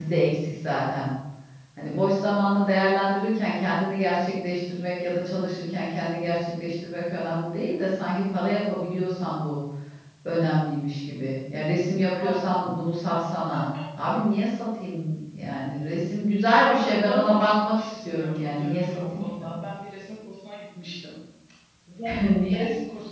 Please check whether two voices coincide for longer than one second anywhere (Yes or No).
Yes